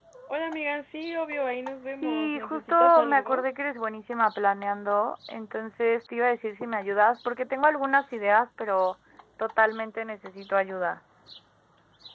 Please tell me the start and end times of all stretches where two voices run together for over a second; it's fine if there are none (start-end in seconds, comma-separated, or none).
2.0-3.4